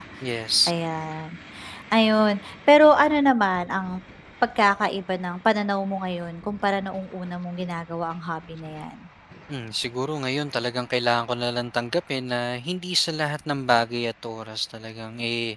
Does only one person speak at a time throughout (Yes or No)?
Yes